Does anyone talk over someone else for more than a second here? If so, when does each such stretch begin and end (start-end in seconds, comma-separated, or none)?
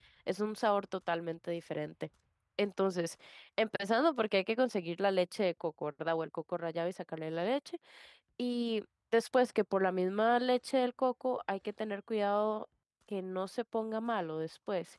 none